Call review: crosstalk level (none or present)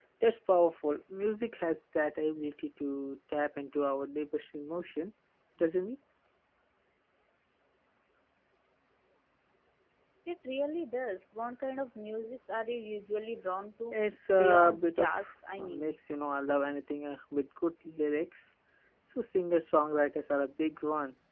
present